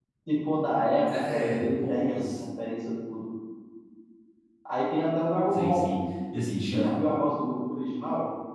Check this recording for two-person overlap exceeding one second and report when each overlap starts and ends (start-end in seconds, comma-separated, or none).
1.1-2.4